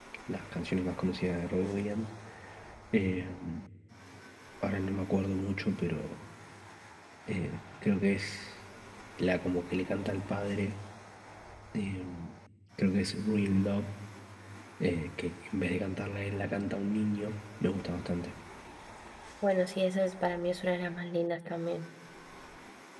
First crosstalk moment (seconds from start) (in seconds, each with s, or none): none